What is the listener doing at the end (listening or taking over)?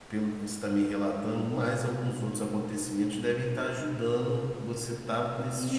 taking over